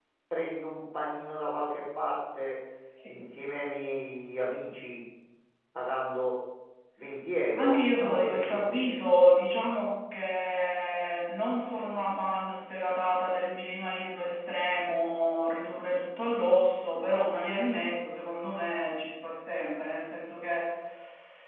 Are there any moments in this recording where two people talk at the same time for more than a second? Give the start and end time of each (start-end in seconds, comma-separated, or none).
7.6-8.8